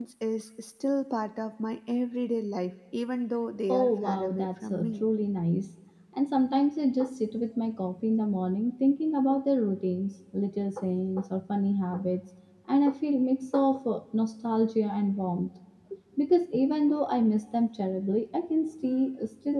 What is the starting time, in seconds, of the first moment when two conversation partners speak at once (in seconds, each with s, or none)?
3.7 s